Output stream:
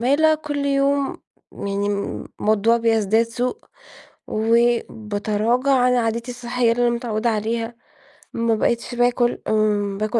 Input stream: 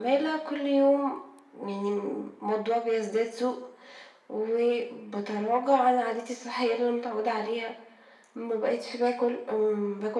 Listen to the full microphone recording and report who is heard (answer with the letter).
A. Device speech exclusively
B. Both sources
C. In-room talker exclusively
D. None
A